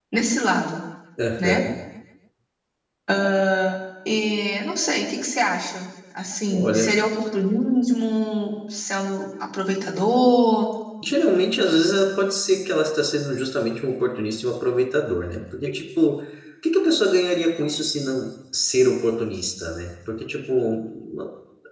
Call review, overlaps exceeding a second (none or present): none